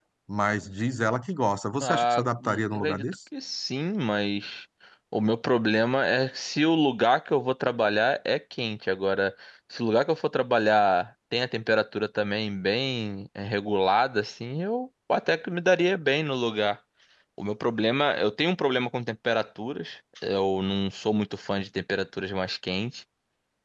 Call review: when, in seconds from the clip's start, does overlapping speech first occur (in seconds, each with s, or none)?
1.8 s